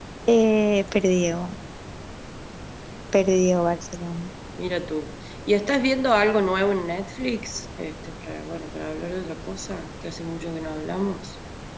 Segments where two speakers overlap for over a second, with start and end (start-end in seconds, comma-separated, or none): none